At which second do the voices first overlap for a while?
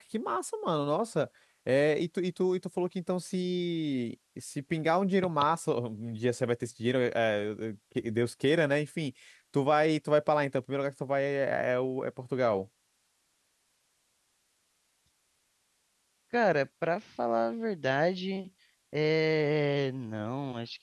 none

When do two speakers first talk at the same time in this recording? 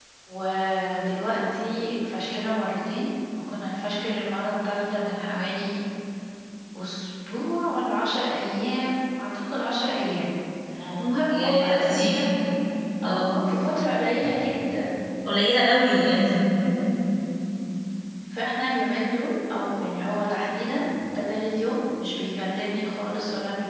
11.0 s

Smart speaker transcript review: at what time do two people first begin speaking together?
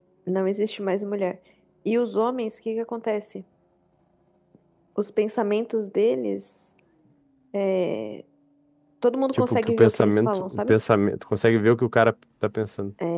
9.3 s

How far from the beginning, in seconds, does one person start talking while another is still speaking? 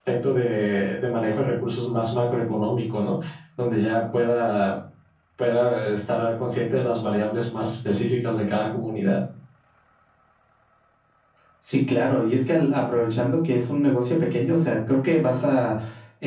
none

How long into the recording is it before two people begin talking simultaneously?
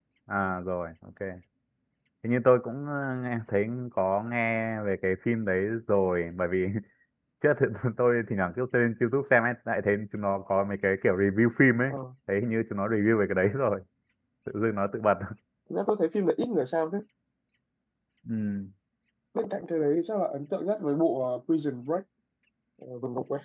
none

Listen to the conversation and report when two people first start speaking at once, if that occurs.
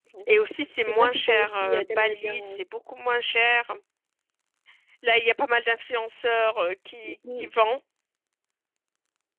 0.9 s

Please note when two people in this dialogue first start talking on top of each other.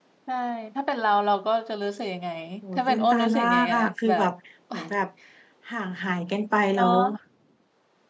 2.7 s

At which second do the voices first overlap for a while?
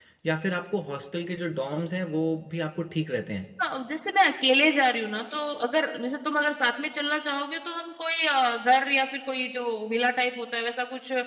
none

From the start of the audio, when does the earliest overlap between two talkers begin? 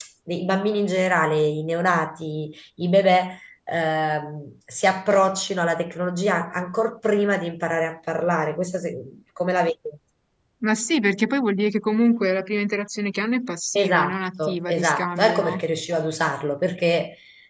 13.8 s

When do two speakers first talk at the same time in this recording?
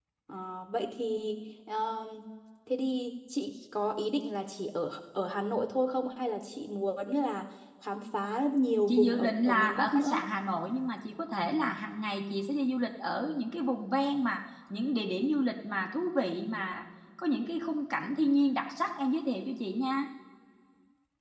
8.9 s

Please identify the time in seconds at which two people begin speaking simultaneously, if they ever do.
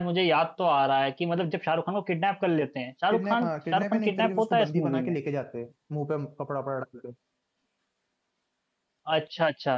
3.1 s

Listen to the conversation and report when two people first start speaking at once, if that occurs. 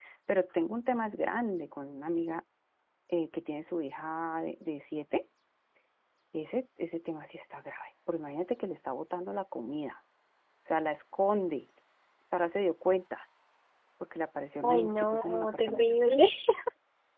14.6 s

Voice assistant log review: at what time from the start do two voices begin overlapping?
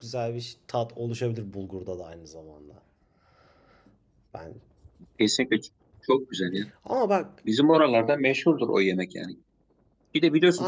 none

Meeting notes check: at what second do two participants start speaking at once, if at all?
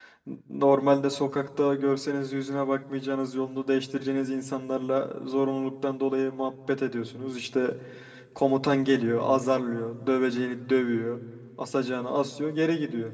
none

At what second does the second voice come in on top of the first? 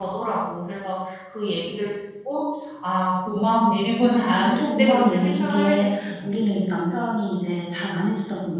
4.2 s

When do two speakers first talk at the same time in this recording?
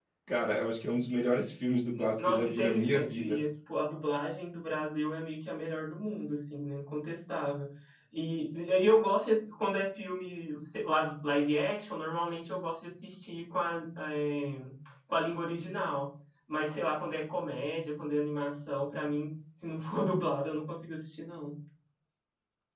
2.0 s

